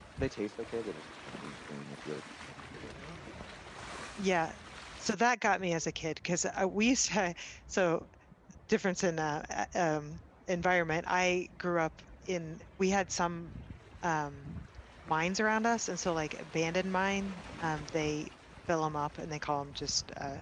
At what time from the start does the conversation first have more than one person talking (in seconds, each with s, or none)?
none